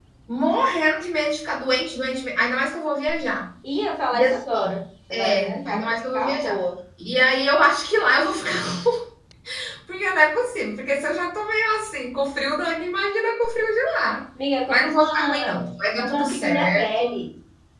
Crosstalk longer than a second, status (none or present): present